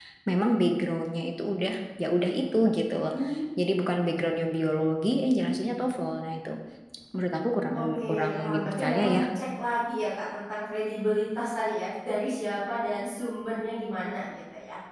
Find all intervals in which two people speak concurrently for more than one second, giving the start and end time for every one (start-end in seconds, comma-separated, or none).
7.7-9.2